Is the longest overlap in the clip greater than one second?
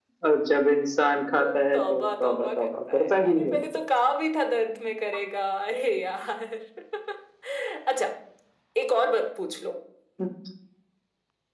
Yes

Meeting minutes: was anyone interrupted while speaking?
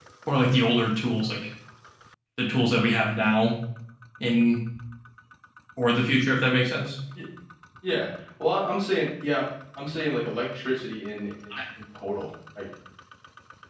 No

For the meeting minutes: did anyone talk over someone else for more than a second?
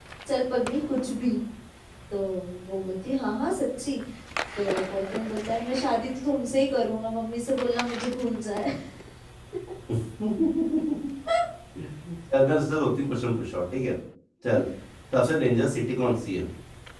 No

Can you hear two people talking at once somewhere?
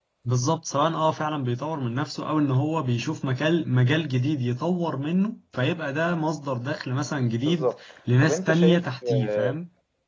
Yes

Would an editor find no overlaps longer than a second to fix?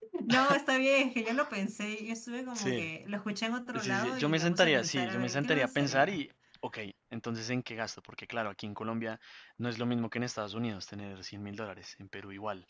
No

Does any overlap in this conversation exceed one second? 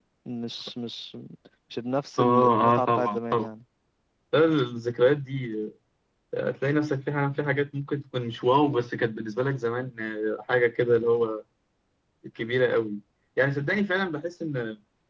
Yes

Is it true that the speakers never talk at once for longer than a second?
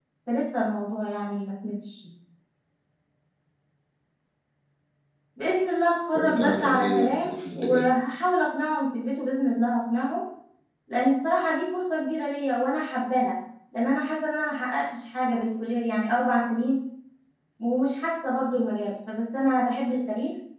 No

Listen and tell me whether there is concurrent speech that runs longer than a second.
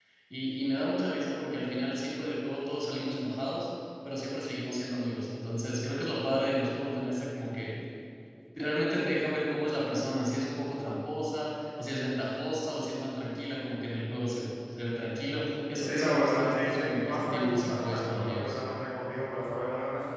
Yes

